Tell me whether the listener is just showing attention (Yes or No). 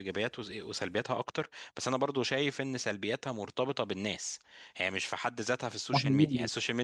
Yes